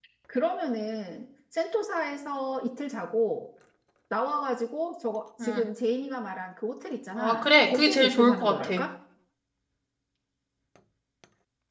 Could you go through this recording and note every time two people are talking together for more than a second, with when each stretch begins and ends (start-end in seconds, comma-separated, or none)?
7.2-8.7